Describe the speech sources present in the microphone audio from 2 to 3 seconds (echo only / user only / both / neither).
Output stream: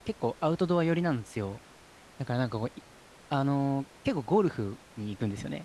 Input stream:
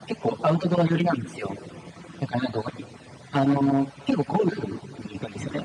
echo only